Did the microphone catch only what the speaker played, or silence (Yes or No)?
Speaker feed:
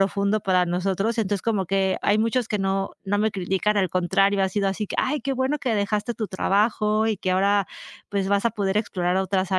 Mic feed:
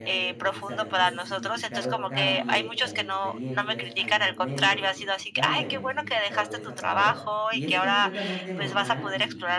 No